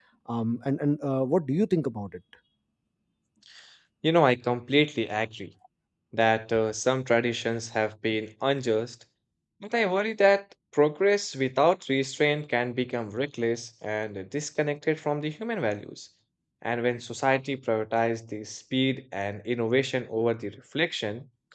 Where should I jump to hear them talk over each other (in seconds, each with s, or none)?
none